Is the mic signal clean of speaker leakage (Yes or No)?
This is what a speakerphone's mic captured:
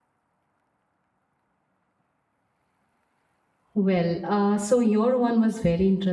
Yes